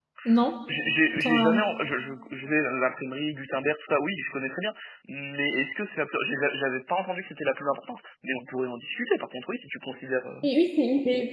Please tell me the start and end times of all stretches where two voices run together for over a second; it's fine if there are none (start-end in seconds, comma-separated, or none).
none